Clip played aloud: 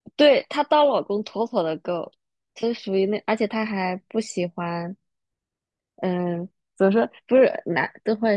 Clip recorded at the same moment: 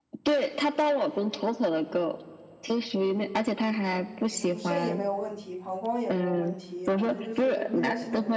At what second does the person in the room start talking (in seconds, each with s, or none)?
4.3 s